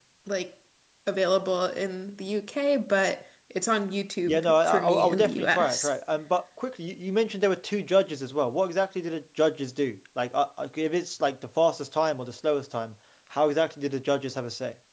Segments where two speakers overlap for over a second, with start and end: 4.3-5.9

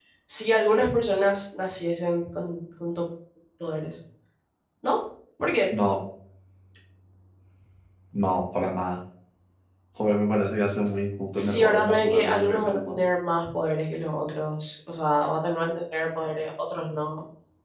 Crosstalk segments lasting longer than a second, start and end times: 11.3-13.0

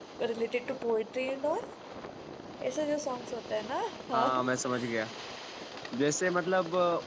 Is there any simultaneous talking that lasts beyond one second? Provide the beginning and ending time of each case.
none

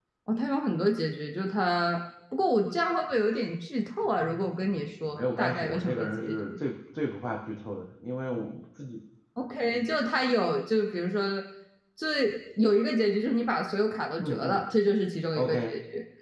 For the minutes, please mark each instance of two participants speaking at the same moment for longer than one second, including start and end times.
5.2-6.5

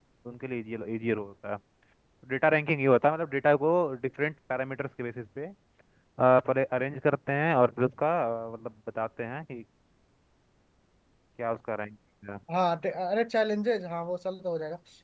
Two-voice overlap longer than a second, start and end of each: none

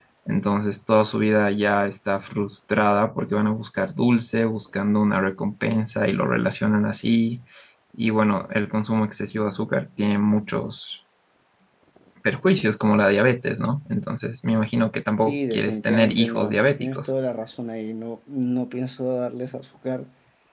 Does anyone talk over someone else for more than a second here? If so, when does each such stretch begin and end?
15.2-17.1

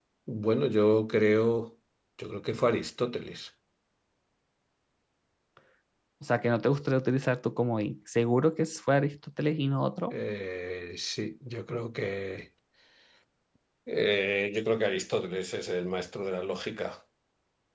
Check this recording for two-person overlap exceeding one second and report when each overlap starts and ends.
none

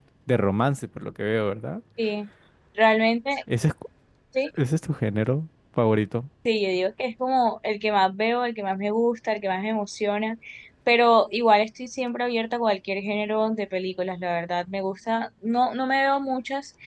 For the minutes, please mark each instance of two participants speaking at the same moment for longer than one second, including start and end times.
none

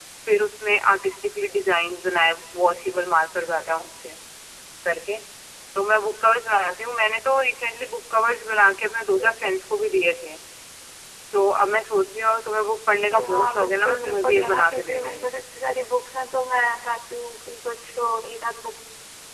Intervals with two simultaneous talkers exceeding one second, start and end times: 13.3-15.3

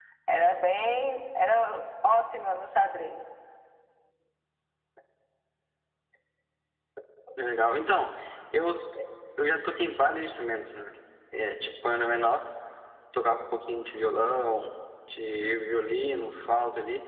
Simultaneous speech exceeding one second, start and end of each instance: none

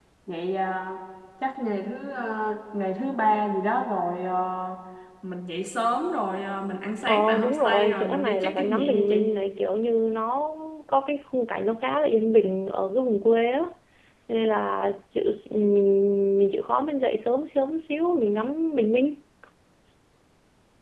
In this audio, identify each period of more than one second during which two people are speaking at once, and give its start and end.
7.0-9.3

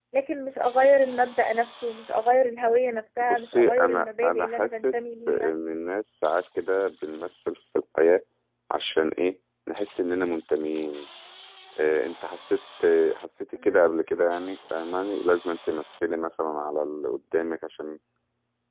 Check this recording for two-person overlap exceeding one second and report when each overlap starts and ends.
3.2-5.5

